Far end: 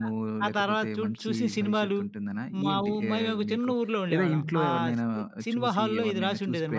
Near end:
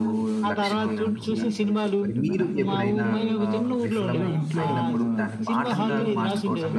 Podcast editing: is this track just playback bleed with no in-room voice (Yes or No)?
No